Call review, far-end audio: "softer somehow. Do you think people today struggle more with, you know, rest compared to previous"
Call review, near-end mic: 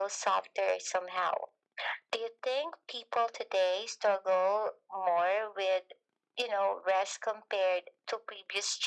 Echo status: present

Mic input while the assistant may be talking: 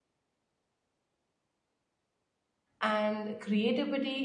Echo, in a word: none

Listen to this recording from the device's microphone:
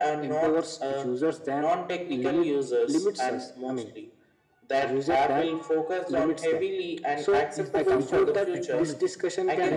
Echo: present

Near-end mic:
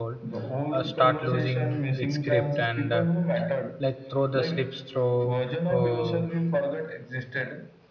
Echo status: present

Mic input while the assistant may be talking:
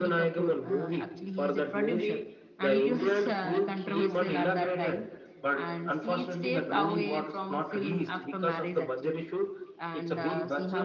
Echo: present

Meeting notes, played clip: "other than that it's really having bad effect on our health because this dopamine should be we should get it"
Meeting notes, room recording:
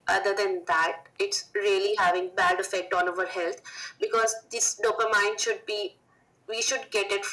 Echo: present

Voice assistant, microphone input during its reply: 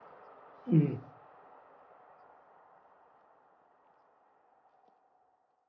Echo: none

